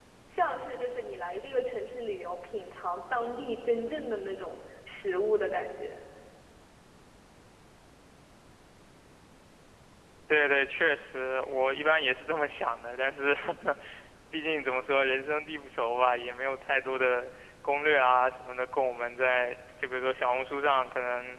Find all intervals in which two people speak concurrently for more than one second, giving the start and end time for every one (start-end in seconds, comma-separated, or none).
none